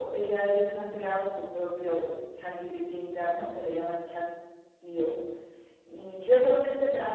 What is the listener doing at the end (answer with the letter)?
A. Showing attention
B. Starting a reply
A